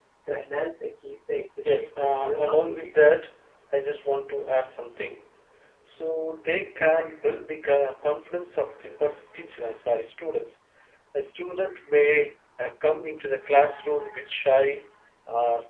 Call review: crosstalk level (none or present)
present